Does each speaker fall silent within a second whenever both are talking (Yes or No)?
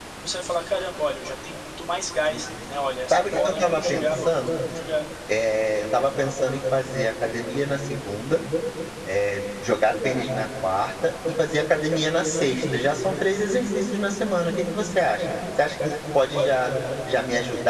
No